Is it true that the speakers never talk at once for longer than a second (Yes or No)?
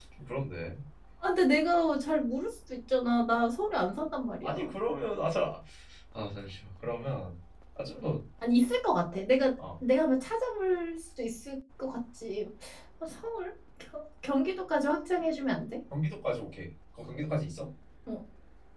Yes